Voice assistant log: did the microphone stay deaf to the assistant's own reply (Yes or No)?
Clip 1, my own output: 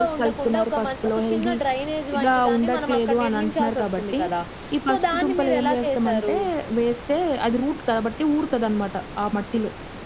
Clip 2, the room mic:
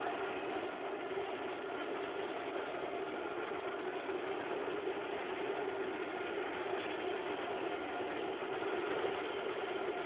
Yes